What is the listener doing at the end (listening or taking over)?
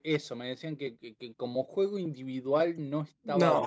listening